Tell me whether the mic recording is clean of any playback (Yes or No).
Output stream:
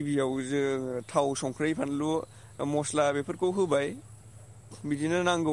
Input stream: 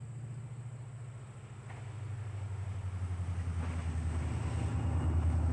Yes